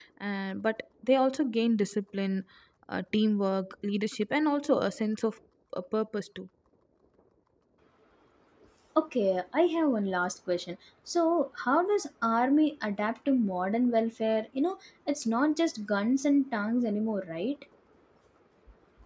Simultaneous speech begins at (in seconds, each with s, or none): none